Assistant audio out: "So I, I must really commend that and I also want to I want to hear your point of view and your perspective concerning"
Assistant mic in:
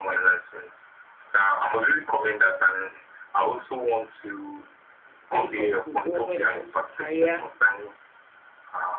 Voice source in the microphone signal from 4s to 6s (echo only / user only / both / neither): both